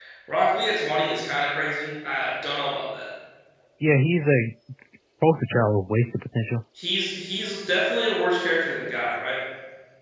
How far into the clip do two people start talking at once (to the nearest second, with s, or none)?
none